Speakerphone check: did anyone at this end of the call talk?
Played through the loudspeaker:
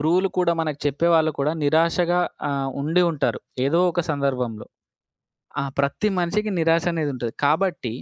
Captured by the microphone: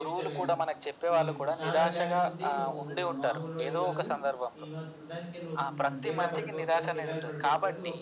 Yes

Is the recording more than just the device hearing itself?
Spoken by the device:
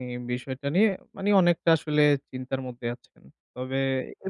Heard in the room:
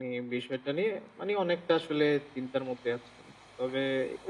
No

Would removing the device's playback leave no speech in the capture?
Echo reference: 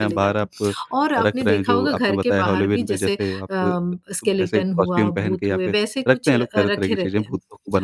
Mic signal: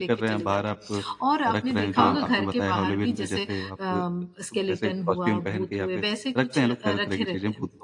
No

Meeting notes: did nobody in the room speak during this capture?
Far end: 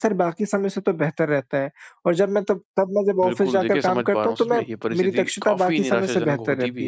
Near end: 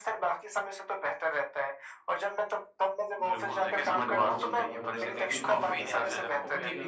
No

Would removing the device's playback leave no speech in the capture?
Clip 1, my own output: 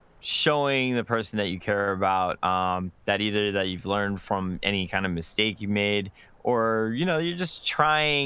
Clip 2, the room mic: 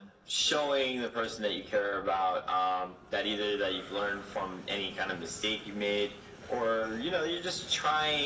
Yes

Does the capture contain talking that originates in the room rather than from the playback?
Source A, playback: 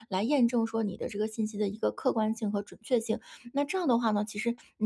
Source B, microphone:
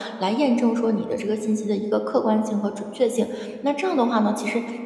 No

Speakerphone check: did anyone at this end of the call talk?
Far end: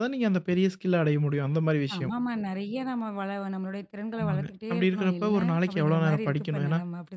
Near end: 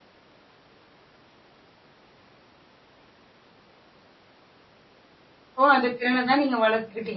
Yes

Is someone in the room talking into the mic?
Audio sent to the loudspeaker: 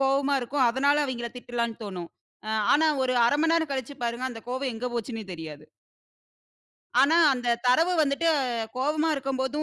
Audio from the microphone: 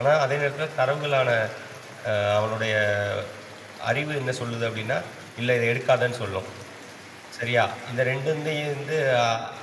Yes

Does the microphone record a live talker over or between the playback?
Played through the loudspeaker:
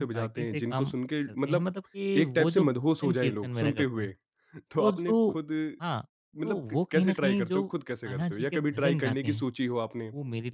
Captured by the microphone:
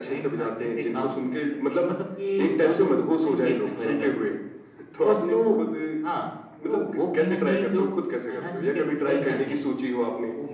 No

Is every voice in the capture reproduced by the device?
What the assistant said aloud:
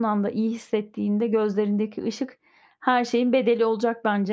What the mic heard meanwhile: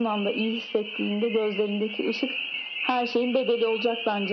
Yes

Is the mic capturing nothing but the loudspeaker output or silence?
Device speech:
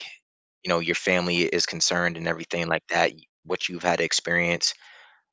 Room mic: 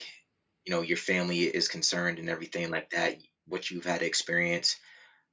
Yes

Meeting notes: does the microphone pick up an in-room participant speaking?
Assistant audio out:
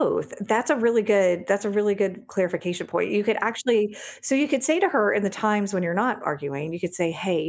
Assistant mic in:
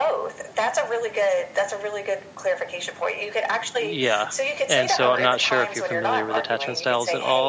Yes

